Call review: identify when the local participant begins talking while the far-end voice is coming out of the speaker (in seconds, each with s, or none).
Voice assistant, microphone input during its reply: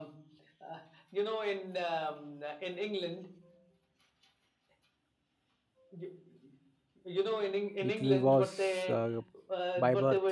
7.8 s